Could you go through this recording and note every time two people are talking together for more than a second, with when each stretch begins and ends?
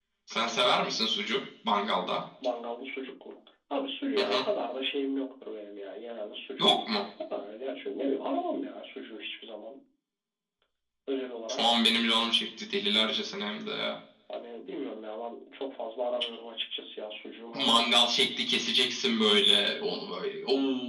none

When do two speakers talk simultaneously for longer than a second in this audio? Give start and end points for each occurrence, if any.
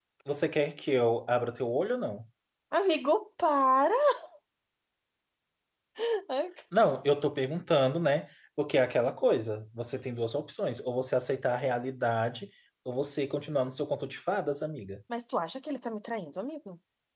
none

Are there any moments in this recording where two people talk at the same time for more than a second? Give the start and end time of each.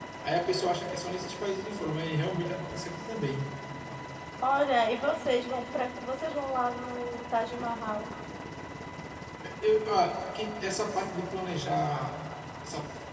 none

